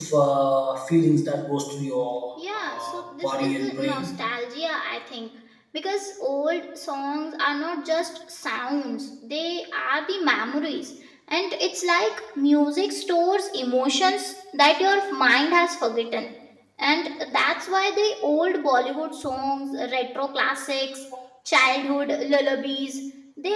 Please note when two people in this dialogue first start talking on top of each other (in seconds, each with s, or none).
2.4 s